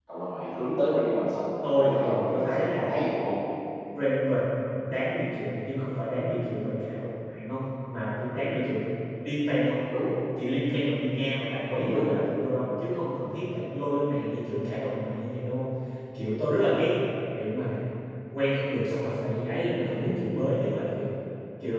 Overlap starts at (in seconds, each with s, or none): 1.7 s